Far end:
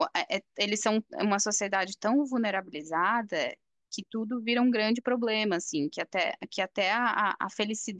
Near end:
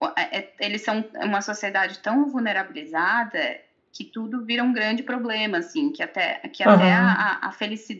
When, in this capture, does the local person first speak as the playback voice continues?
6.6 s

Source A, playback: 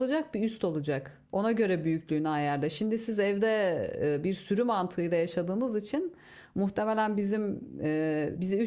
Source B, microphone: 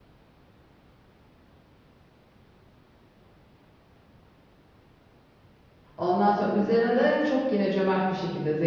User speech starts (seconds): 6.0 s

